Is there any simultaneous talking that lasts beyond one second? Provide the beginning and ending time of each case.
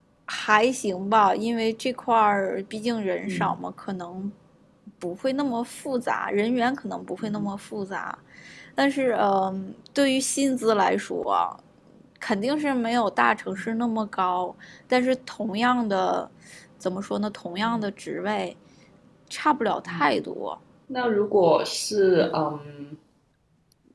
none

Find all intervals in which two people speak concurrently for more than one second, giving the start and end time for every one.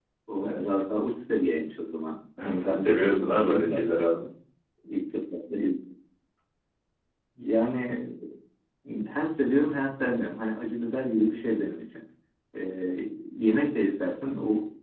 2.4-3.8

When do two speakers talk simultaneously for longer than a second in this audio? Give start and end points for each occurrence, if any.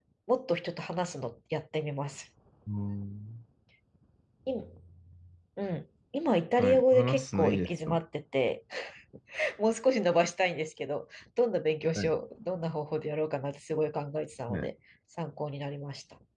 6.6-8.0

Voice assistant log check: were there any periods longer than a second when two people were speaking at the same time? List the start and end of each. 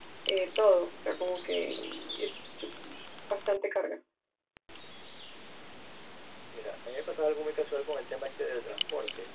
none

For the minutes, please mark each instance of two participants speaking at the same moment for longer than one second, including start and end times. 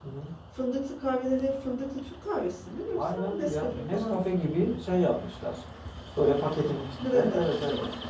3.0-4.4

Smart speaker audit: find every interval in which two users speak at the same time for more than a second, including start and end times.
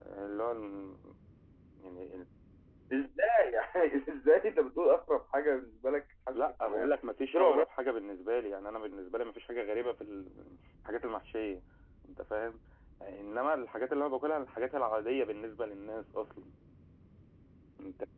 none

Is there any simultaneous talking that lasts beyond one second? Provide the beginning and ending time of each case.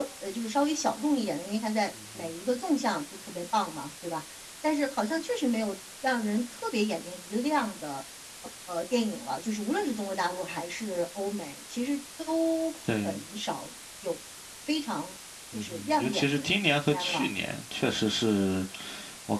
15.5-17.3

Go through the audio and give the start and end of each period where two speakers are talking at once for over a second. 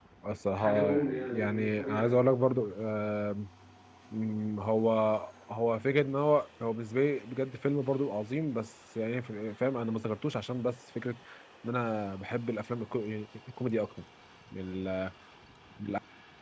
0.5-2.1

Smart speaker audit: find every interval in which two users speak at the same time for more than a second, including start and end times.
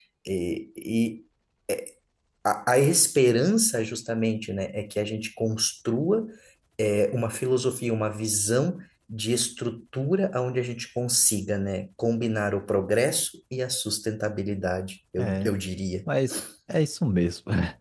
none

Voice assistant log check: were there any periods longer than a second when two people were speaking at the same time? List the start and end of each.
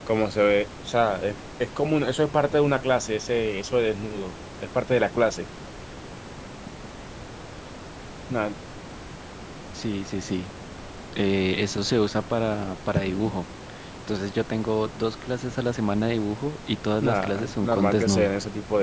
17.0-18.3

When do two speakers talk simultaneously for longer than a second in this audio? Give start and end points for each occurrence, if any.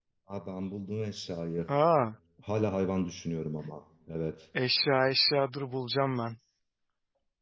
none

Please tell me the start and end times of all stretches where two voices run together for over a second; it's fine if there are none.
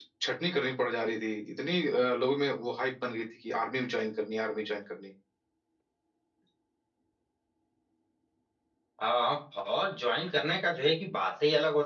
none

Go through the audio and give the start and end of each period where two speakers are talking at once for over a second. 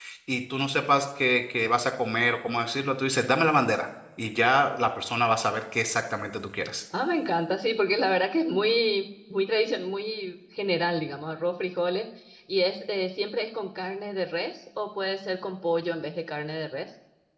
none

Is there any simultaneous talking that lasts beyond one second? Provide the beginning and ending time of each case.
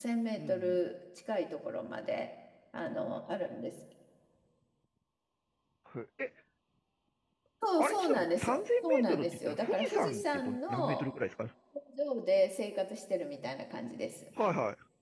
7.8-11.1

